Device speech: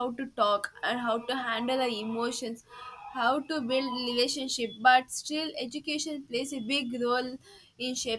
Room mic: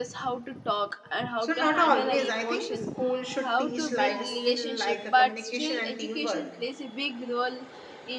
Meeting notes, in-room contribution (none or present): present